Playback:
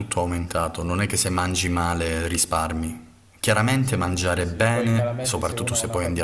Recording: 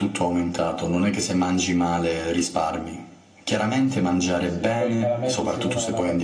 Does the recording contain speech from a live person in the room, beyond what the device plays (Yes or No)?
No